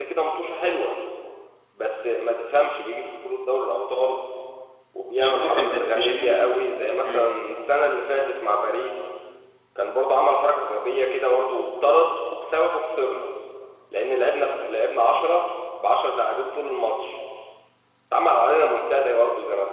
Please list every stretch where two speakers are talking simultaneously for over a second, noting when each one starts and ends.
5.2-6.5

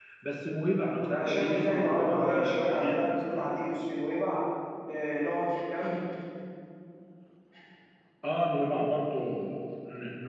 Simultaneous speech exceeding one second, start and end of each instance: 1.1-3.5

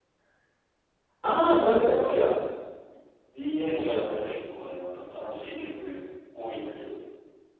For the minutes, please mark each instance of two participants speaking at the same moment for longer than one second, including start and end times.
none

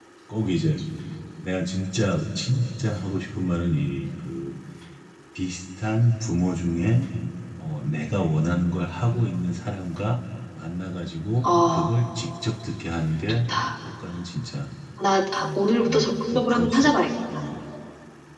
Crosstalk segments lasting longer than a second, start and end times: 15.4-16.9

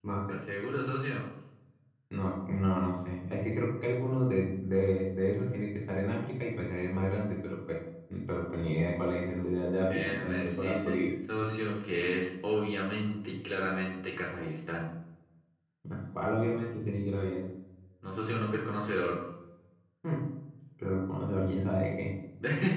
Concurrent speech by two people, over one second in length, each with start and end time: 9.9-11.1

